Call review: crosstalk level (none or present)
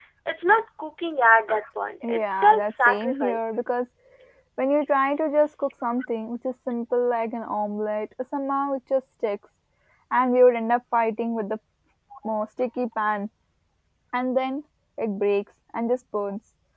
present